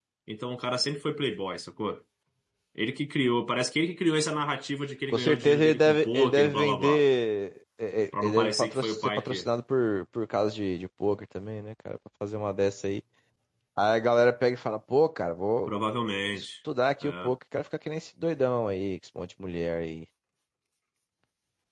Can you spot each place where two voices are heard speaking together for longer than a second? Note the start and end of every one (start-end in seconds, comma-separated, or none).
5.1-7.0, 8.2-9.5